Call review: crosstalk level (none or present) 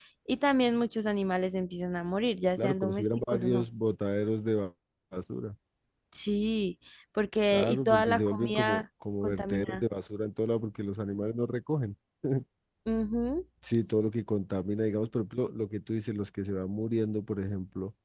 present